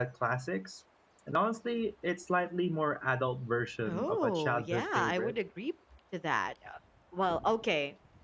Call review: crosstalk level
present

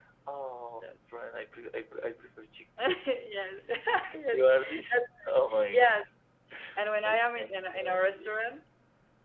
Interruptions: present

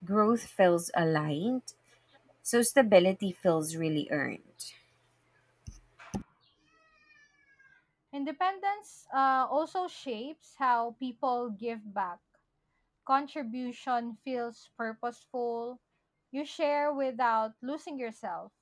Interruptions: none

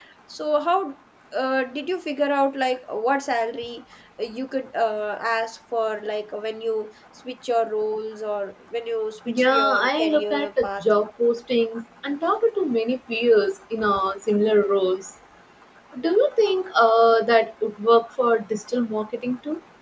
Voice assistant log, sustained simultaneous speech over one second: present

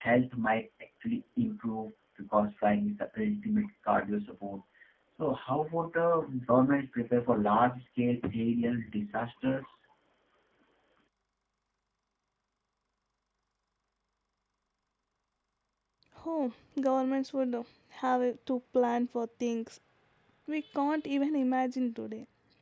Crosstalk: none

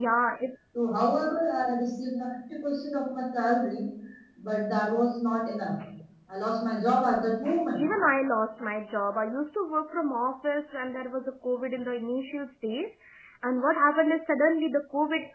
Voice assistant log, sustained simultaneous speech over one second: none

